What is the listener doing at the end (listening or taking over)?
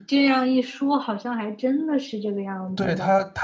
taking over